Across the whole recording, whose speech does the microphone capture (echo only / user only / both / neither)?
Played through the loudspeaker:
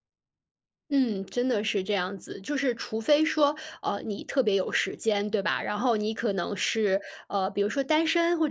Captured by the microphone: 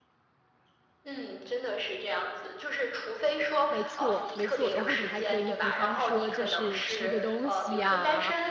both